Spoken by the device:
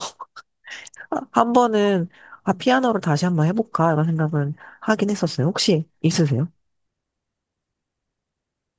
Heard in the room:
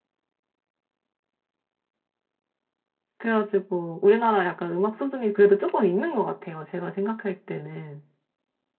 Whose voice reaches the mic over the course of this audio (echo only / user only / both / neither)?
user only